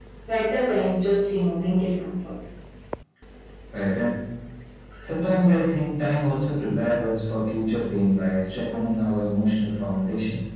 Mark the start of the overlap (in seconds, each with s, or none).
none